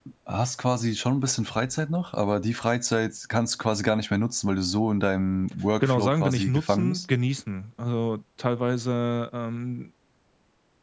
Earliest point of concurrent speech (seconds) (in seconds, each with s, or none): 5.8 s